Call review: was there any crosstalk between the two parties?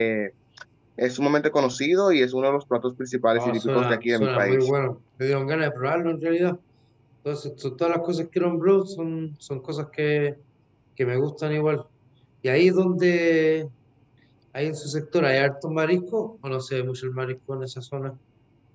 Yes, from 3.3 s

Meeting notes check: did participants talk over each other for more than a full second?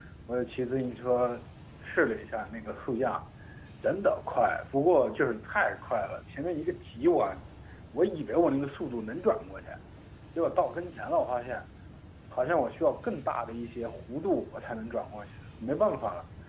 No

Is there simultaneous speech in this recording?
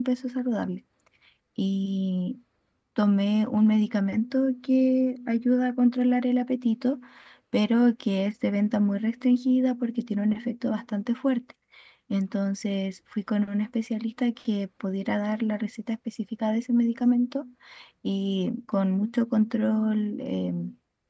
No

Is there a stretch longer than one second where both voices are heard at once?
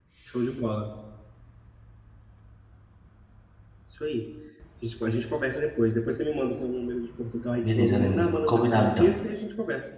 Yes, from 7.6 s

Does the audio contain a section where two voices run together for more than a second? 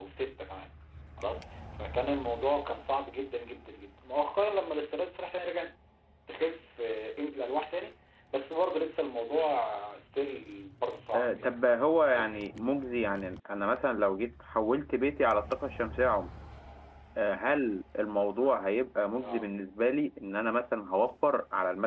No

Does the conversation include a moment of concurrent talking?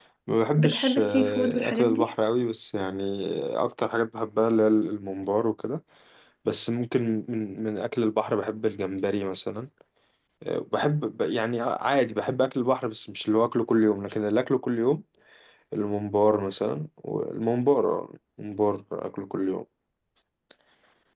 Yes, from 0.6 s

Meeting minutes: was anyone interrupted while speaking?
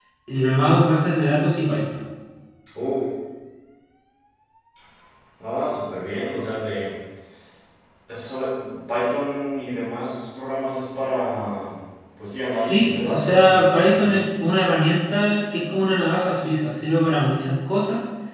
Yes, from 12.5 s

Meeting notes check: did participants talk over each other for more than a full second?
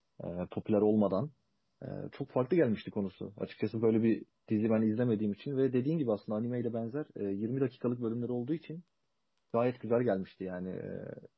No

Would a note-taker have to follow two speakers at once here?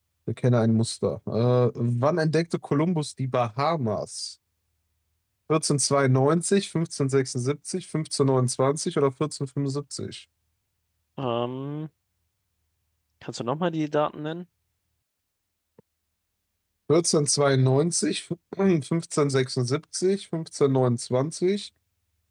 No

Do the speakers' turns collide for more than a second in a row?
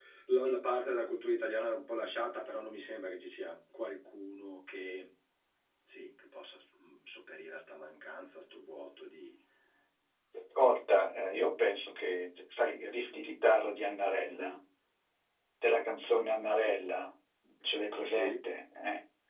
No

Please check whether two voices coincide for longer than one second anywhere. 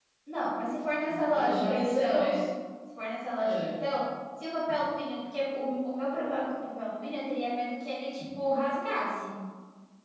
Yes, from 1.0 s

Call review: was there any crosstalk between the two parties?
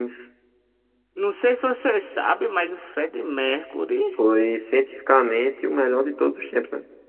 No

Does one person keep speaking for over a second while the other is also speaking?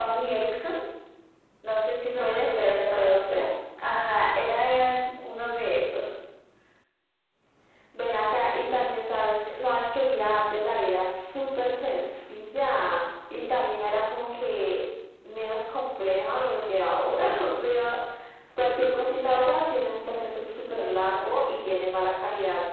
Yes, from 2.2 s

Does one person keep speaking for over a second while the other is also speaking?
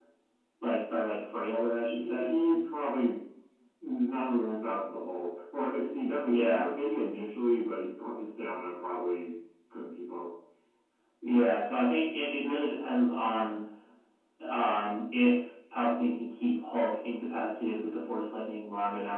No

